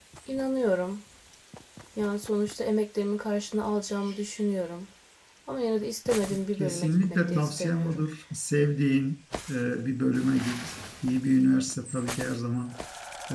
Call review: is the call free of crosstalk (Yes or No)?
No